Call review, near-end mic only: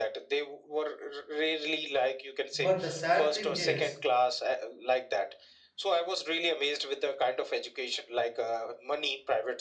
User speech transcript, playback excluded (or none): But the sad thing is,